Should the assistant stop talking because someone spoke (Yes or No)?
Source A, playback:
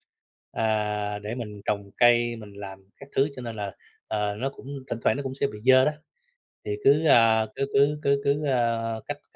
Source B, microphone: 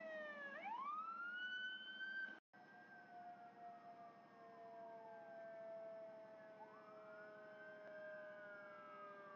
No